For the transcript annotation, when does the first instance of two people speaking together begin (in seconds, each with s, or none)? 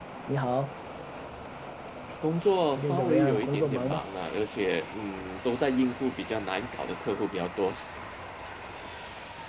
2.8 s